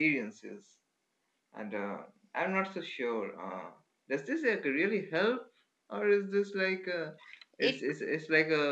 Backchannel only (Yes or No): Yes